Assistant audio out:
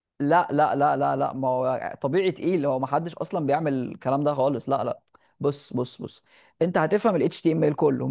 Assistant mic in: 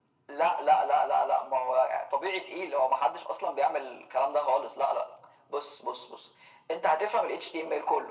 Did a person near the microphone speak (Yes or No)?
No